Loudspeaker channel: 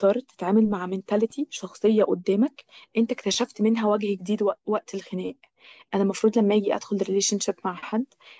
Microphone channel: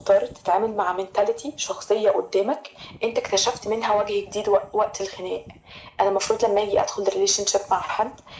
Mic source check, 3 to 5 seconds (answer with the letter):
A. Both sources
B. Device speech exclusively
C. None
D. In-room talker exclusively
B